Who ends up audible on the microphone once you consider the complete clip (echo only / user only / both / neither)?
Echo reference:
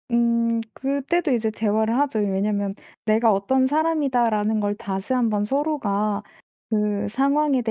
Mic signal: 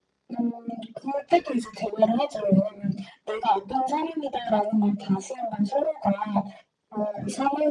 echo only